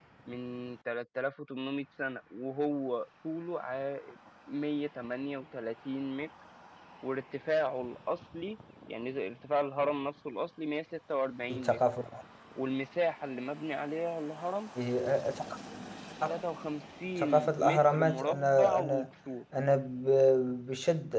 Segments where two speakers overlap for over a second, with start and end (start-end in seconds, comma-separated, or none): 17.2-19.1